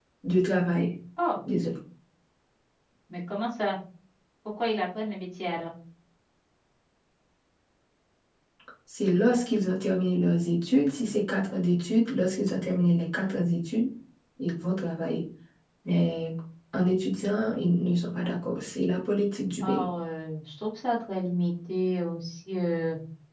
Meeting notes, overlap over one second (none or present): none